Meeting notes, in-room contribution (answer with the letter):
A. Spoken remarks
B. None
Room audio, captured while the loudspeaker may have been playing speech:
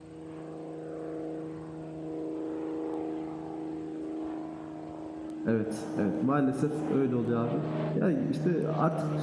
A